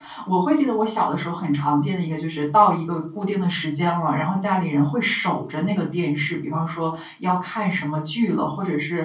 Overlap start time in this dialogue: none

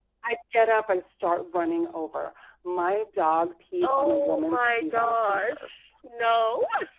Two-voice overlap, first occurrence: 3.8 s

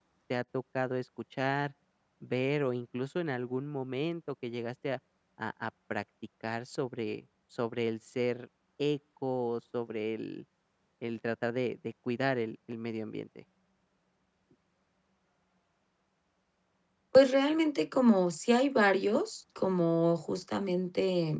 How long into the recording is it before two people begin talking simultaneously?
none

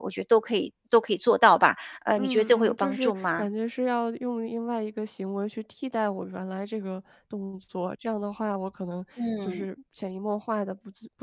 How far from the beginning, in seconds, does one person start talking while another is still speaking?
2.2 s

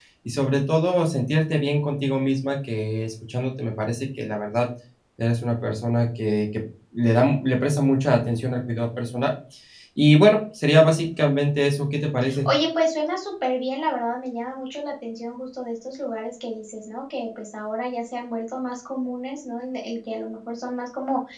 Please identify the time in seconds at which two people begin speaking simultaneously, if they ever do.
none

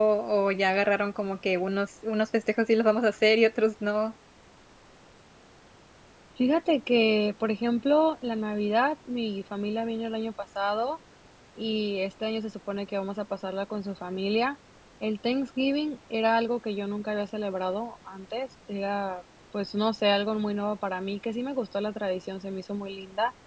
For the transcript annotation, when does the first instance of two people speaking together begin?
none

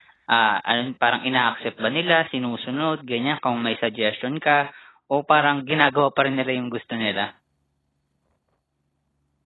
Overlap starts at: none

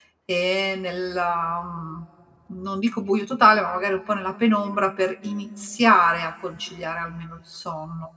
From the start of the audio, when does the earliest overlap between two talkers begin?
none

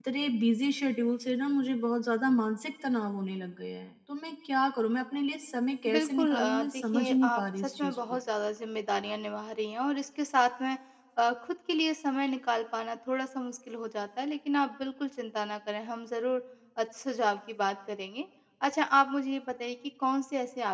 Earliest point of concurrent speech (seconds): 5.8 s

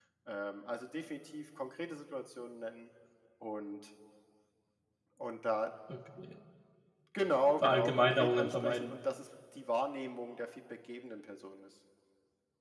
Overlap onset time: 7.6 s

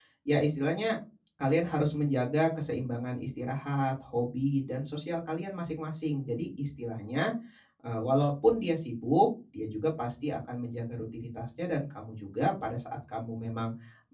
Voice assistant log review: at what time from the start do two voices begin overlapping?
none

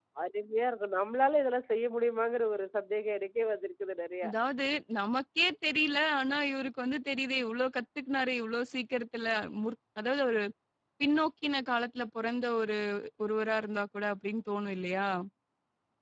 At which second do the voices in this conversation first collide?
none

